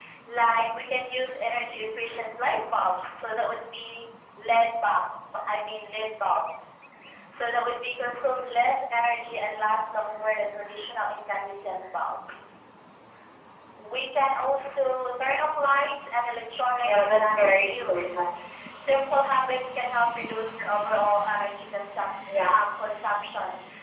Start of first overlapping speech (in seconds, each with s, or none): 16.8 s